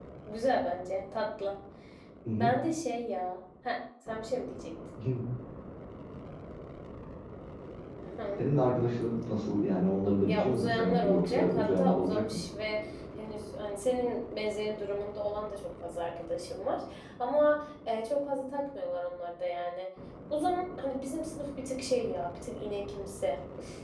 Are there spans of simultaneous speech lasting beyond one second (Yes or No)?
Yes